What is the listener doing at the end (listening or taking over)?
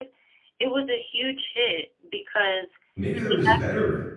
taking over